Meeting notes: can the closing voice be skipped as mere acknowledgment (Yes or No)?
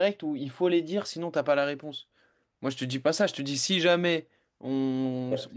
No